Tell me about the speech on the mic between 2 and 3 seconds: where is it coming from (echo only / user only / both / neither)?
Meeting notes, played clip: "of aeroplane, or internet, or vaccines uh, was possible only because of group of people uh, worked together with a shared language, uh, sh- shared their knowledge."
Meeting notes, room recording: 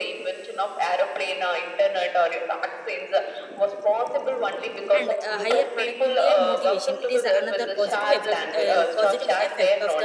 echo only